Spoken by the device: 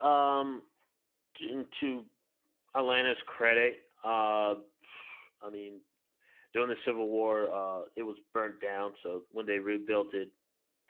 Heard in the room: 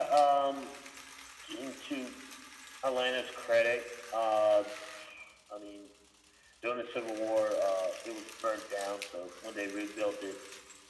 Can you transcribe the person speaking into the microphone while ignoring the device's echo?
none

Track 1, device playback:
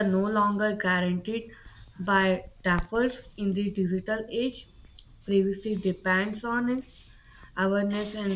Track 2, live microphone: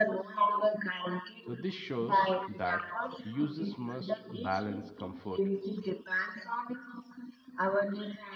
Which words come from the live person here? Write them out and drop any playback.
so, this shows that users must balance comfort

